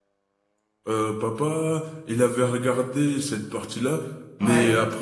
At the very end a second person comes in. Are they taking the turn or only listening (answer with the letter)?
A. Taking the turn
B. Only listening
B